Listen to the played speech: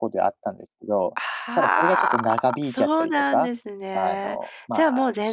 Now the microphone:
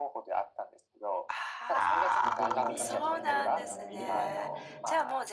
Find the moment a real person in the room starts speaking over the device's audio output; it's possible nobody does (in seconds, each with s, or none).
2.2 s